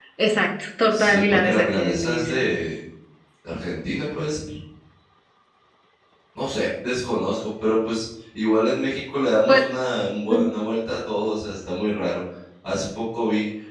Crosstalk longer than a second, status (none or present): present